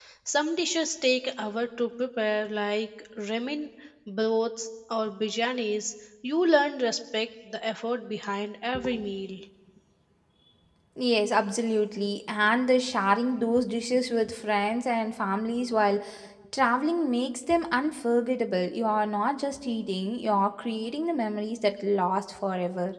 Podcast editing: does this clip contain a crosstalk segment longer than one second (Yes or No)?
No